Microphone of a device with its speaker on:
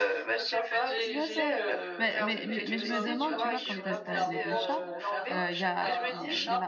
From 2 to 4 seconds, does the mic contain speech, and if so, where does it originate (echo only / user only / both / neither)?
both